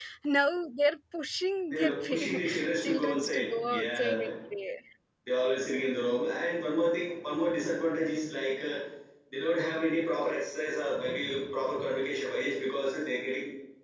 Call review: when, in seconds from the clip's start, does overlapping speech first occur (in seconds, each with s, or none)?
1.7 s